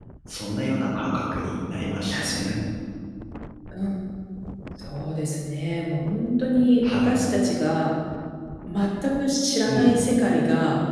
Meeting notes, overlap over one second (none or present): none